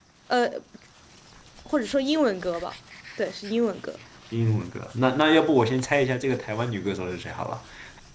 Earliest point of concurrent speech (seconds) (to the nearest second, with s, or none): none